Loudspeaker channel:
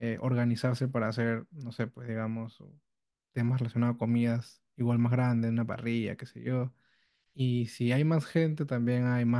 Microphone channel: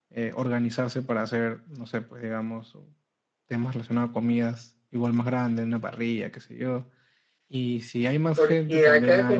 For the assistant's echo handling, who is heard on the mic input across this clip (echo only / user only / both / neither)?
both